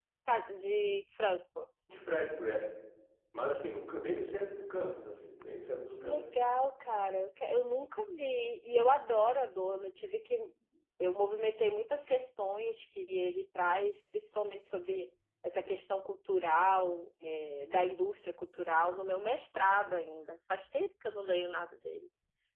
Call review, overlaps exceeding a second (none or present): none